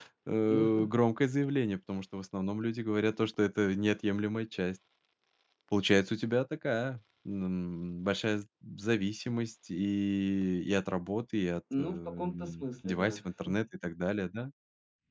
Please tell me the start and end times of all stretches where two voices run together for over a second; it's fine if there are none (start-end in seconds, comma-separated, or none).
11.8-13.2